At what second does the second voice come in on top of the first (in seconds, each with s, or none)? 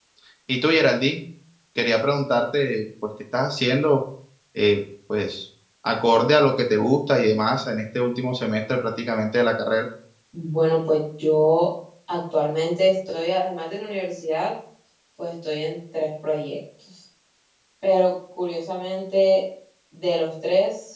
none